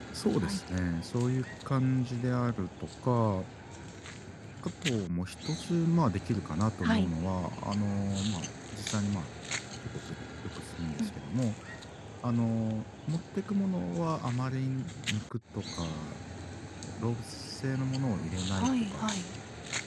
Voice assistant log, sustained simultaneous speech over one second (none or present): none